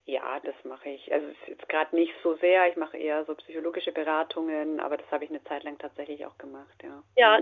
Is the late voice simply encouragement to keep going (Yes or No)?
No